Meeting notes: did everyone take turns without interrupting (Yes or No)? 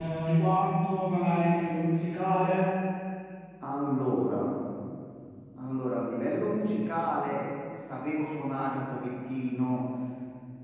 Yes